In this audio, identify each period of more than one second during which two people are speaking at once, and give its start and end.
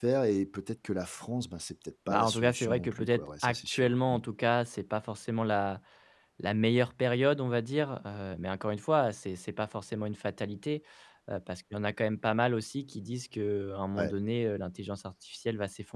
2.1-4.2

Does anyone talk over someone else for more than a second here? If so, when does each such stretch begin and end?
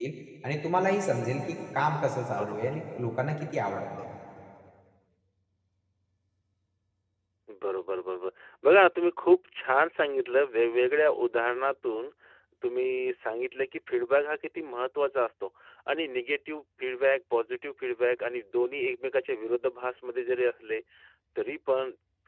none

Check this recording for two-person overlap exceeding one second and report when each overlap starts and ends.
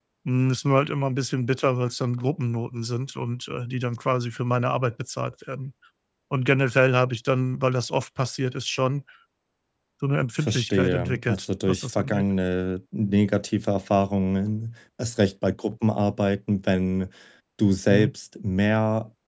10.4-12.2

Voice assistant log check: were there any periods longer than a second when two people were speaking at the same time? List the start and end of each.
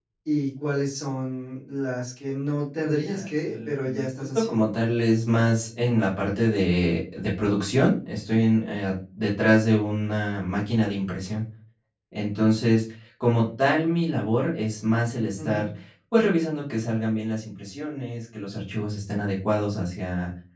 3.0-4.5

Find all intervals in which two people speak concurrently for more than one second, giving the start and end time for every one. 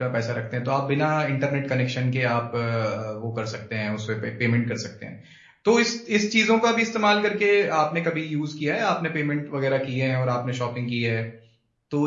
none

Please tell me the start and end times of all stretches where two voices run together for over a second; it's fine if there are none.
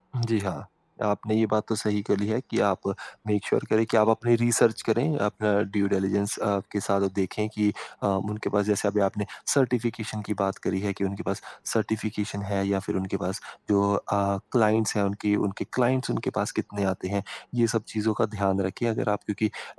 none

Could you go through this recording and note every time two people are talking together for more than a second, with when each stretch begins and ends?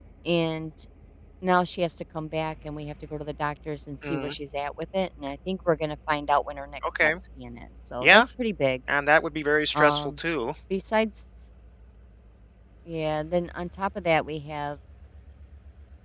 none

